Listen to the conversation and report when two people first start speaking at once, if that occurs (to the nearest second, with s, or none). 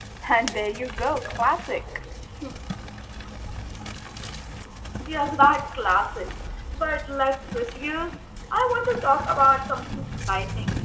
none